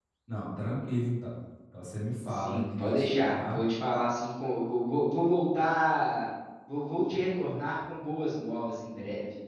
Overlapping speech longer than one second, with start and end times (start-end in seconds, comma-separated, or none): 2.3-3.6